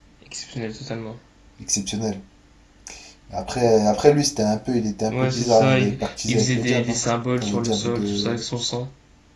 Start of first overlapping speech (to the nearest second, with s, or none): 5 s